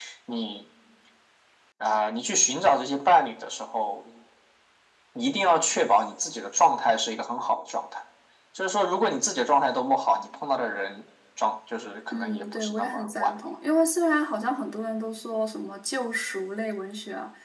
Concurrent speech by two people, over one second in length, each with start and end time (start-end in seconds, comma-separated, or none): 12.1-13.4